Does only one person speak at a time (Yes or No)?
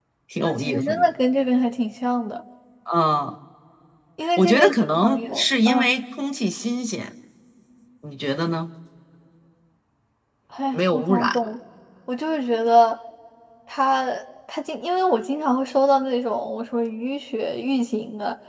No